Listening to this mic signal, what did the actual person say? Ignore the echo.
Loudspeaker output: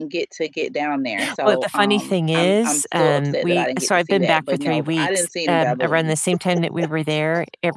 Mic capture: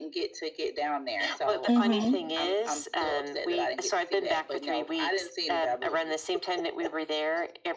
Mhm.

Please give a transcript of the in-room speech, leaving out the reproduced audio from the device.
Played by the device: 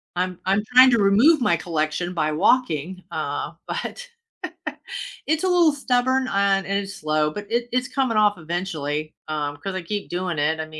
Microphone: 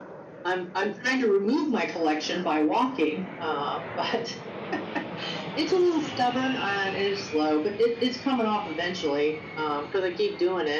none

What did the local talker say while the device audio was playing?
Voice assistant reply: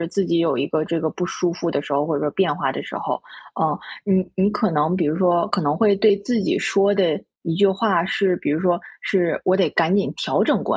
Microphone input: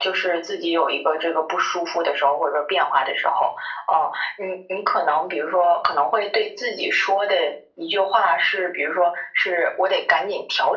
none

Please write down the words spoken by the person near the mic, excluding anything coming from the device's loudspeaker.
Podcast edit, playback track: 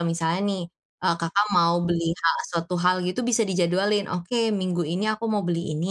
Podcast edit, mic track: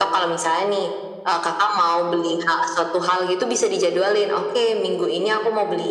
none

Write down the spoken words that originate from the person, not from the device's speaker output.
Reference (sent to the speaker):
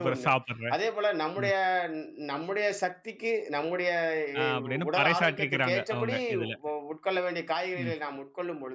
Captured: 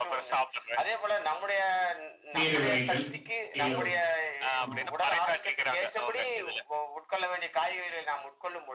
கீரை வகைகள், கீரை வகை. ம்,

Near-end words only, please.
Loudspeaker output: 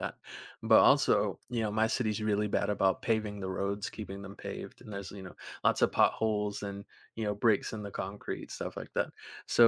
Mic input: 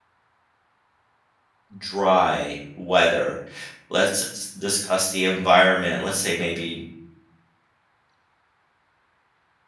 dry weather. Let's s- discuss the environment. Let's say maybe

